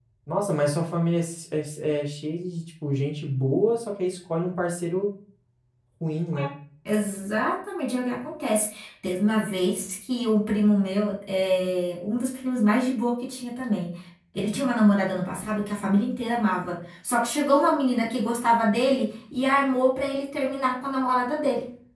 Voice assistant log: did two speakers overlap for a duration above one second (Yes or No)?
No